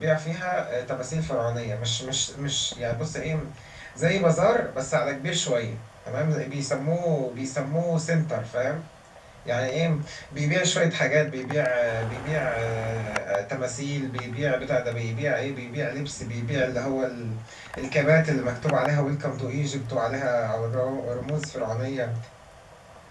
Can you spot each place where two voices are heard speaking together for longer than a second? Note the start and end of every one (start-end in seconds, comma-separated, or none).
none